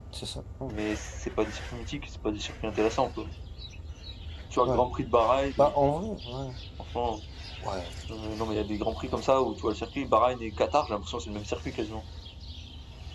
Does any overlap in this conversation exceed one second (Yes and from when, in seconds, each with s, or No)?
No